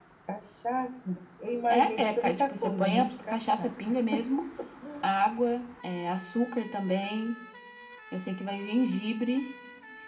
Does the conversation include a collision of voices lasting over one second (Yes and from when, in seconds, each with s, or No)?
Yes, from 1.7 s